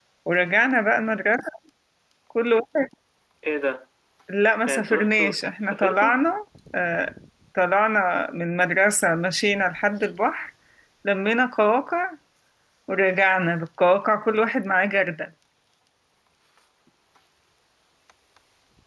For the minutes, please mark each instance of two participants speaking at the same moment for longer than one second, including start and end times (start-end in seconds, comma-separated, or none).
4.6-6.2